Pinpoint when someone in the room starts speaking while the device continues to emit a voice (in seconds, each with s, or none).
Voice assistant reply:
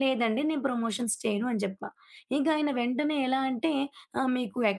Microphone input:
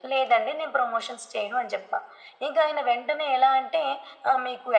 none